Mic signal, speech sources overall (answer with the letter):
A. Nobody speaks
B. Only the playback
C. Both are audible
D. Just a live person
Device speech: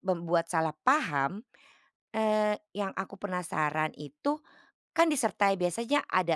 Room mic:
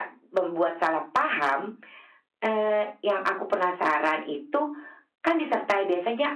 B